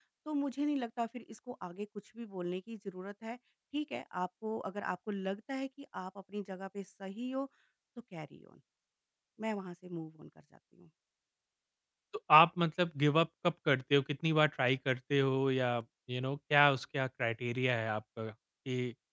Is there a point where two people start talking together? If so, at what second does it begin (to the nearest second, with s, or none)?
none